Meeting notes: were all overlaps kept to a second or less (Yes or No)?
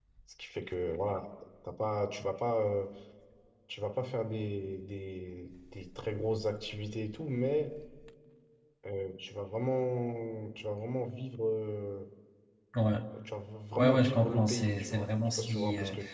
No